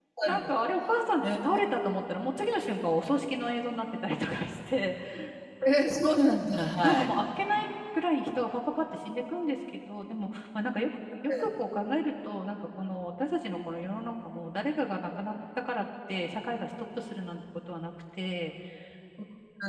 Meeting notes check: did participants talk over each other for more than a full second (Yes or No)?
No